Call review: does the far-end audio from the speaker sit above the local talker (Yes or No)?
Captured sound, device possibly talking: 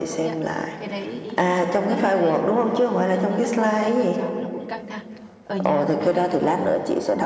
Yes